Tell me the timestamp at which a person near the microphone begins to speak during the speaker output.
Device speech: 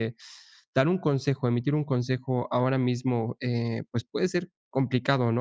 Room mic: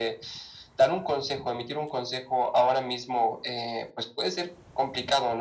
none

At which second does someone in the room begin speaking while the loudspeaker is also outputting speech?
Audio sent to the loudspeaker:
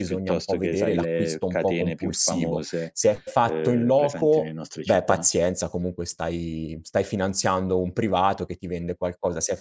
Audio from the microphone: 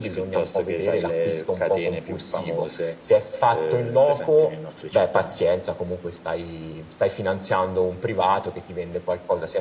none

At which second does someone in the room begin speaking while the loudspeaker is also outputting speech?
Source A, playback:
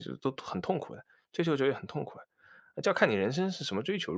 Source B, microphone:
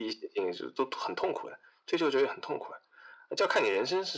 none

